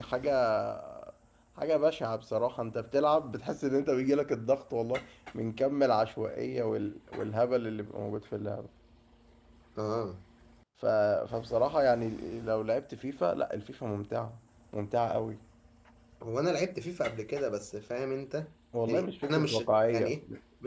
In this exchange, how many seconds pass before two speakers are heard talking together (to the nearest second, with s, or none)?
19 s